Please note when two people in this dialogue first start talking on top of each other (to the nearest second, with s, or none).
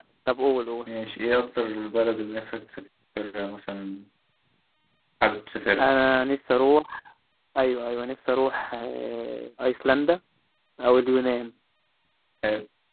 none